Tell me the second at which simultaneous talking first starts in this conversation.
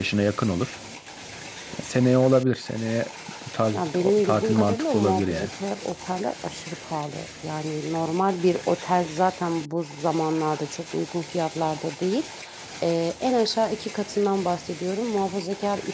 3.7 s

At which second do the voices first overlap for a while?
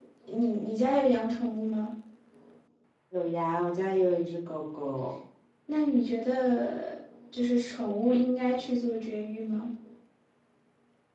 none

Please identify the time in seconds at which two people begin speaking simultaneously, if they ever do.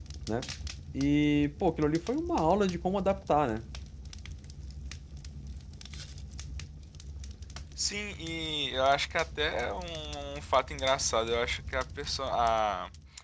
none

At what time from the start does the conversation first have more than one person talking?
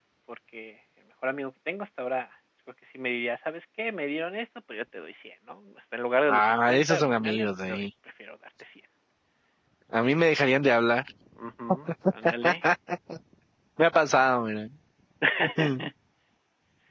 6.3 s

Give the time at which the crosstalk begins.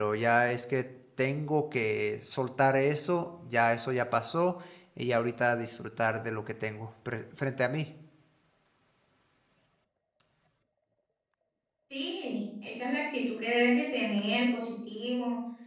none

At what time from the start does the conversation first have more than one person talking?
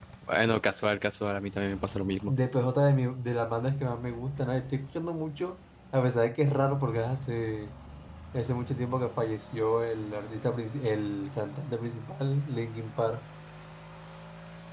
none

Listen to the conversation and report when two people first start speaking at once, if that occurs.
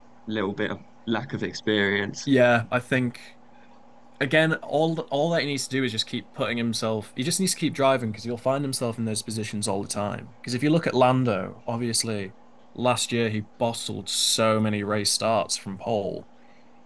none

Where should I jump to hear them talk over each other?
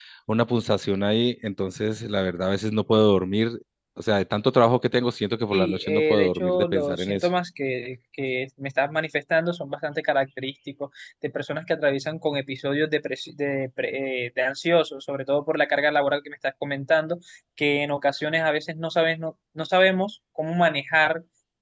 5.5 s

